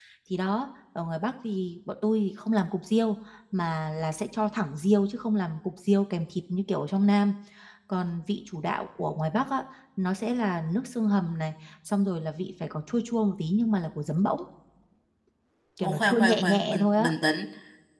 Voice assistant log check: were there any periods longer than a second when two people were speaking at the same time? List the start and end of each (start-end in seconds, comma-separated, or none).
15.8-17.1